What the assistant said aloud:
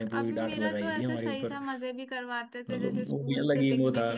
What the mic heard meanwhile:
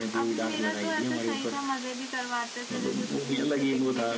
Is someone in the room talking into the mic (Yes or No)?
No